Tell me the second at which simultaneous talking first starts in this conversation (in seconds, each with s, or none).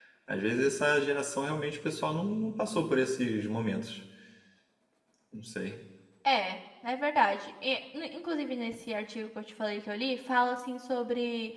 none